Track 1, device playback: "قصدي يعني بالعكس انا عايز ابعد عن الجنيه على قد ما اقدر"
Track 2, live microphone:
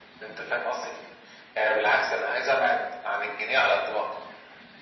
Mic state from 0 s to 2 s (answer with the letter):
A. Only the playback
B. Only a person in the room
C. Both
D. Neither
A